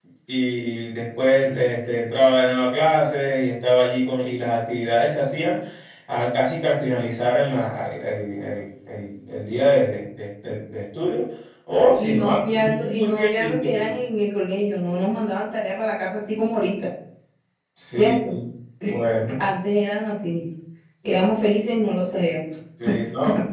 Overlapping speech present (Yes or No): Yes